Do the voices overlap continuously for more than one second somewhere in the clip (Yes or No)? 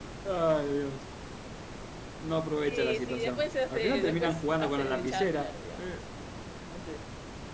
Yes